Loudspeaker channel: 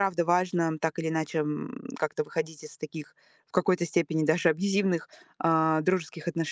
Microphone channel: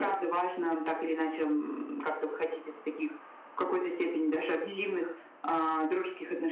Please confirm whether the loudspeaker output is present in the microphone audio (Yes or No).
Yes